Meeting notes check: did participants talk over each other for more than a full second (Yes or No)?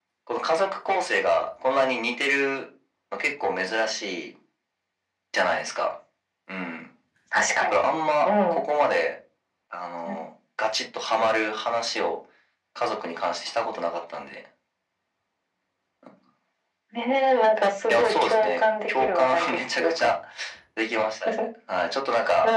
Yes